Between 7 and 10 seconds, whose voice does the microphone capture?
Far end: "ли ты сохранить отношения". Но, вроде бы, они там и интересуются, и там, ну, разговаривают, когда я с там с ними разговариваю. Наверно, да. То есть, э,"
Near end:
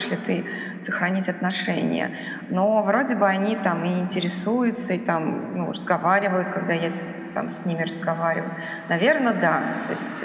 echo only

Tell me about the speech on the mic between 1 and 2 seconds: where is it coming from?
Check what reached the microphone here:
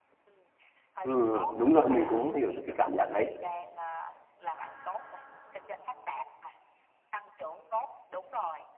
both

